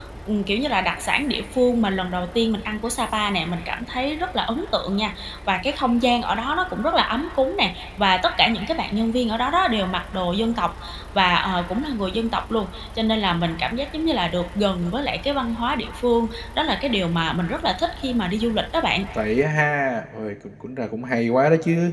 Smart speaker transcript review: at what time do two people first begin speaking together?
none

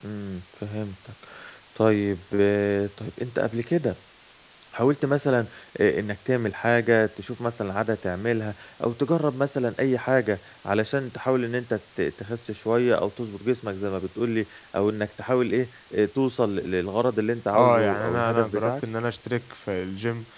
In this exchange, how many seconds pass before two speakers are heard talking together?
17.5 s

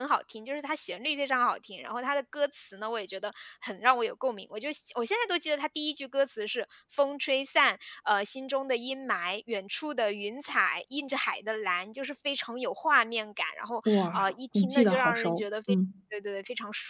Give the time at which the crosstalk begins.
13.9 s

